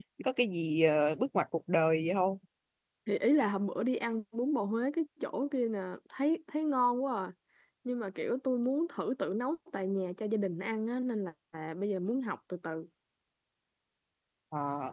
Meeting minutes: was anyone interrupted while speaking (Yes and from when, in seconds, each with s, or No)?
No